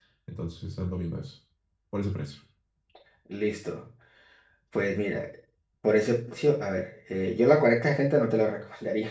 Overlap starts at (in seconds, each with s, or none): none